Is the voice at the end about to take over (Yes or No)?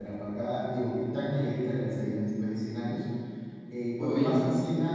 No